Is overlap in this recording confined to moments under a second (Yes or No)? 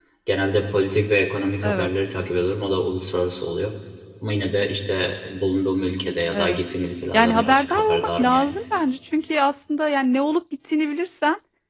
No